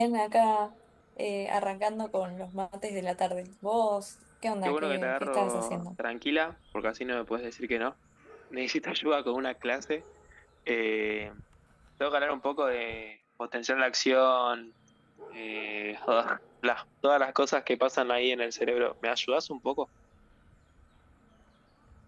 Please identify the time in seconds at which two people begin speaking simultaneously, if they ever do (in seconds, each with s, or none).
4.6 s